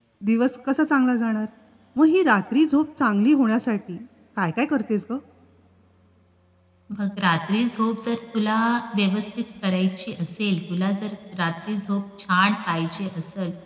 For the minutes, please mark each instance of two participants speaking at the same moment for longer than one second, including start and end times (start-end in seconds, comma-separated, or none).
none